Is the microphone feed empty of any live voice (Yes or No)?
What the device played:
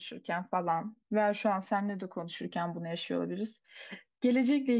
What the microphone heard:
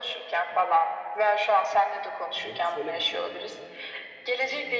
No